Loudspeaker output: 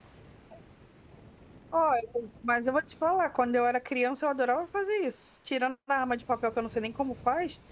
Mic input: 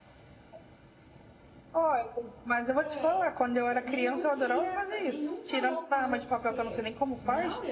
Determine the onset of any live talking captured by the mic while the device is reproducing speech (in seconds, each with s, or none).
2.8 s